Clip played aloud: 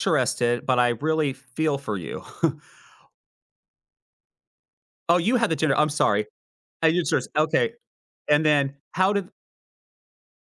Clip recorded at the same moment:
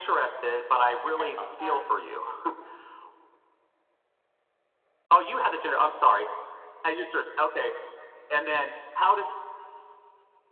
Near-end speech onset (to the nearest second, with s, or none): 1 s